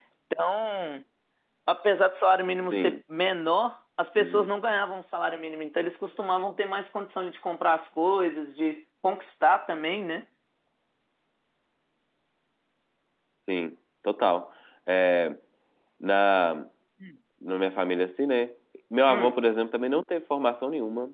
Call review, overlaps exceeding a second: none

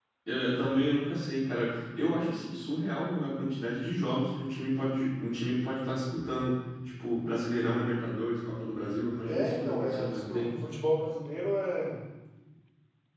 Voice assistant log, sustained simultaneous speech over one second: present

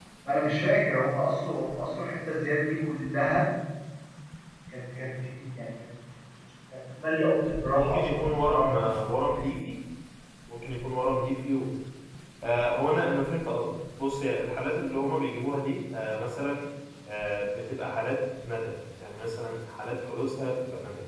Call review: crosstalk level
present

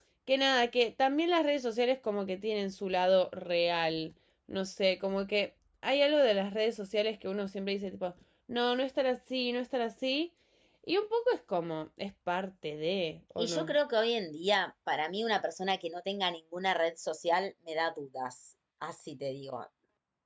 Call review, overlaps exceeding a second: none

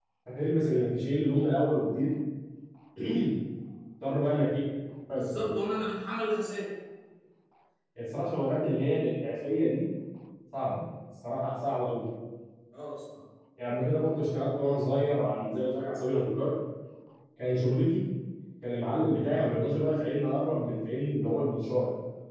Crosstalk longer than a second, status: none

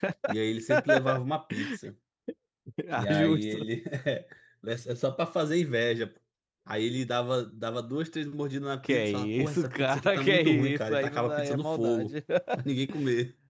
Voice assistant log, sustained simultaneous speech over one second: present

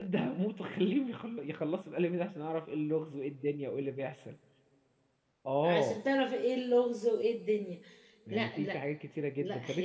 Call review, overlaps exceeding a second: none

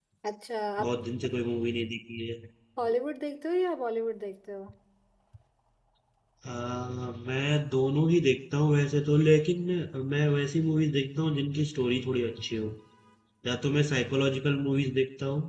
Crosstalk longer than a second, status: none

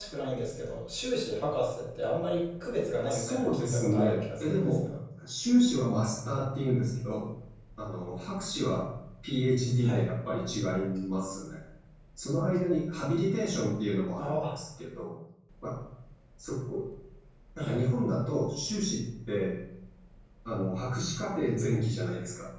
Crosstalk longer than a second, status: present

